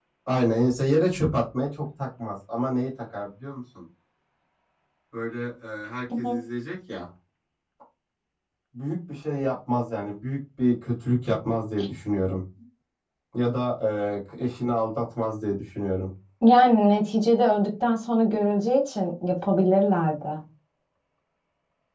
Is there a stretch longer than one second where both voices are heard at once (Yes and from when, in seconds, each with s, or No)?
No